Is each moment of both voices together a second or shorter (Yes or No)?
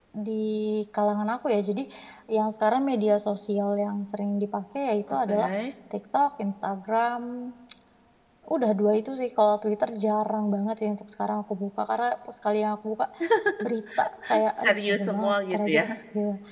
No